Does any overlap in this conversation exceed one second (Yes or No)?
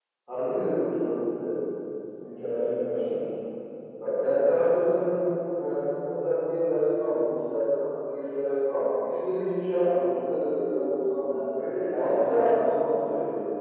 No